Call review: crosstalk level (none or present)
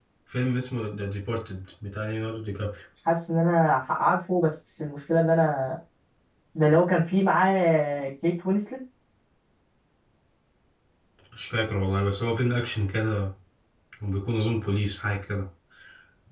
none